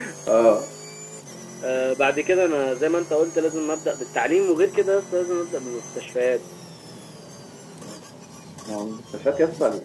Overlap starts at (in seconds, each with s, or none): none